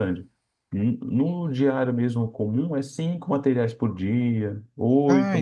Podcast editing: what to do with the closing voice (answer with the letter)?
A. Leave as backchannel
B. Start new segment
A